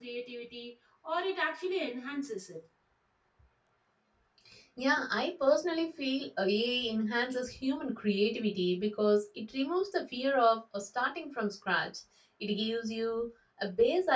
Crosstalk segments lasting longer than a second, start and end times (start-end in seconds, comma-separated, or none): none